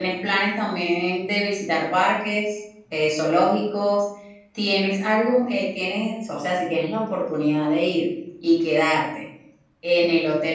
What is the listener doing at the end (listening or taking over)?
listening